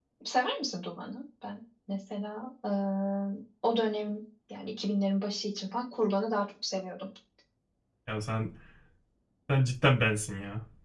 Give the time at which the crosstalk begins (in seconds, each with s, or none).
none